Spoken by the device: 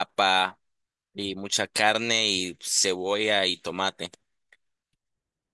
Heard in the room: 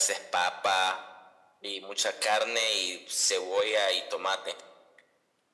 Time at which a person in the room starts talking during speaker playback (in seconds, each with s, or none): none